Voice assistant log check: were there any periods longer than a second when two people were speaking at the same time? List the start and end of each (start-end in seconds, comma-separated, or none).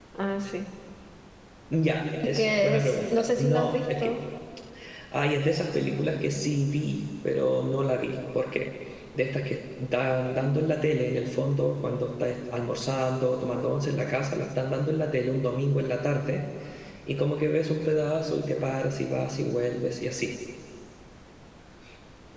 2.2-4.1